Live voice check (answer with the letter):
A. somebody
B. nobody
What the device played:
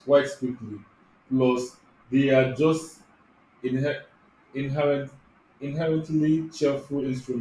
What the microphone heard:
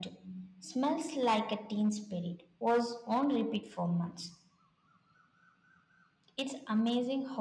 A